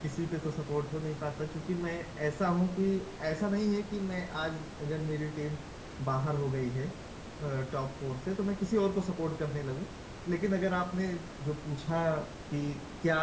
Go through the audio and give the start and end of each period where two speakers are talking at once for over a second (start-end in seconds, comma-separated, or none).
none